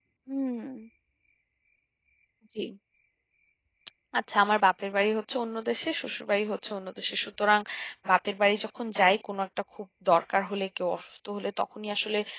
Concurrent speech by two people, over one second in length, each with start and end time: none

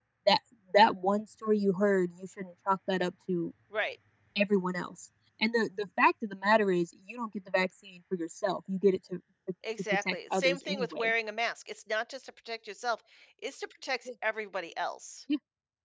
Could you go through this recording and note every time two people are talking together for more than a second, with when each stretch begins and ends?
9.9-11.1

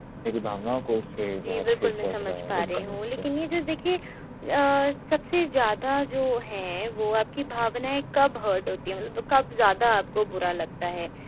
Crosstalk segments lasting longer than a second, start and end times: 1.4-3.2

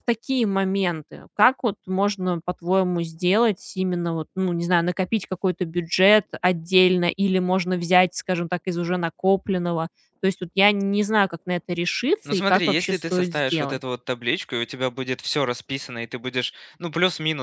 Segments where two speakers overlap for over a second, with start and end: 12.3-13.8

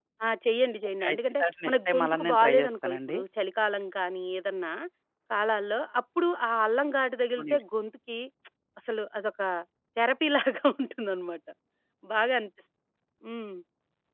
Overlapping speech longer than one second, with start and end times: 1.0-3.2

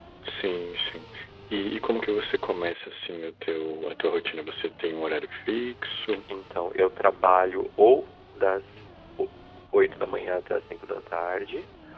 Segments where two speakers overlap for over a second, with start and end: none

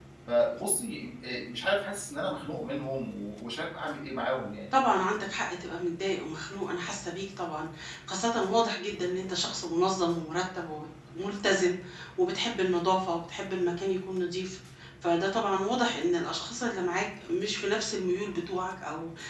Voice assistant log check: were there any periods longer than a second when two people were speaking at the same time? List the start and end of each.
none

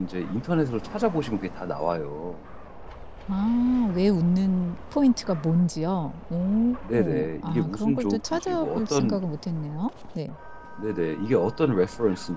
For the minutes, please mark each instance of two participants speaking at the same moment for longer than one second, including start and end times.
6.9-9.2

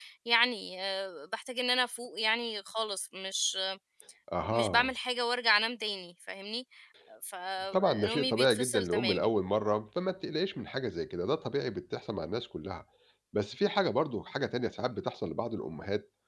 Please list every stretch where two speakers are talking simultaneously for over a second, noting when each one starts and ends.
7.7-9.3

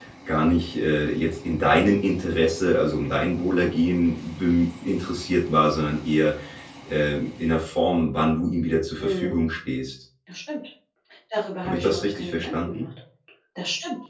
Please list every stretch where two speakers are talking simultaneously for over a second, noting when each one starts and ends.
11.6-12.8

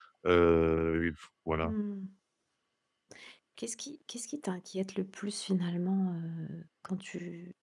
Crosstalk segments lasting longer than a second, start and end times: none

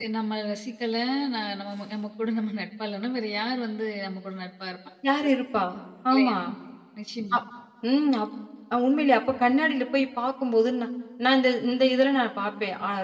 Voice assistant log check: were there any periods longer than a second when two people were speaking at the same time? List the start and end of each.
none

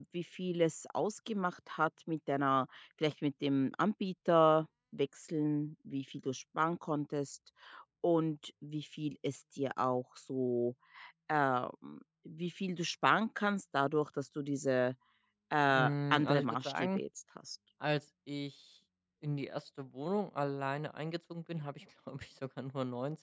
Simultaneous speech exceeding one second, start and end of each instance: 15.7-17.0

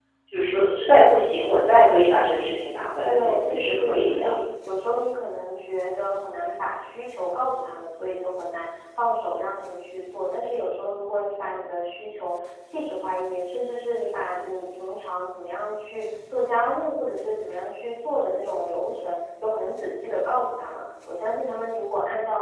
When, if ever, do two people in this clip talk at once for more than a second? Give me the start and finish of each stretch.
3.0-4.3

